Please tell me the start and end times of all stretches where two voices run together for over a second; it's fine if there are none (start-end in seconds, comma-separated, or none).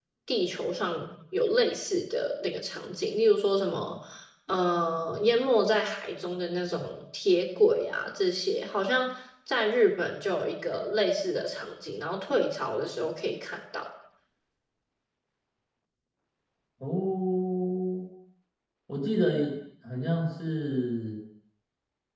none